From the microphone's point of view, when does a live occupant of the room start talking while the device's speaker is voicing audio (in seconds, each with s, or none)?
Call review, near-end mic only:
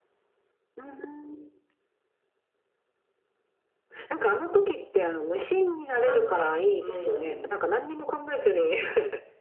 6.0 s